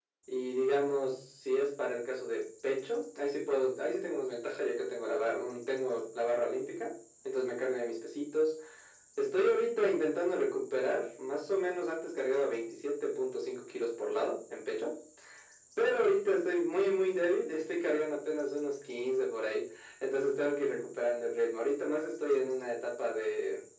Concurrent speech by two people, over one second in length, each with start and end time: none

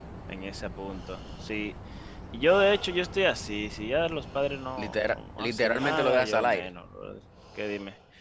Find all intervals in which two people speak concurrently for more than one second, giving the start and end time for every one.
4.8-6.7

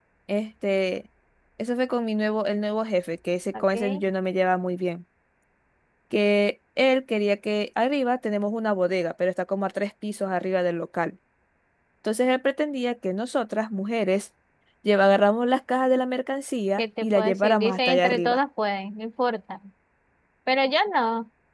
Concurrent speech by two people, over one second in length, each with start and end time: 16.8-18.4

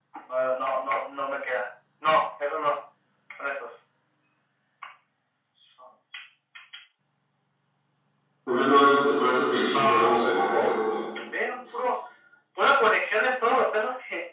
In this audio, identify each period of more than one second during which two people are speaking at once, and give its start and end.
9.7-11.0

